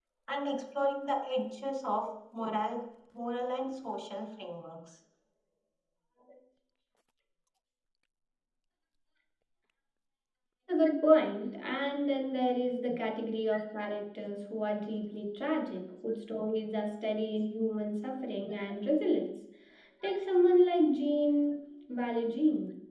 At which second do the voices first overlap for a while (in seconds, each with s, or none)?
none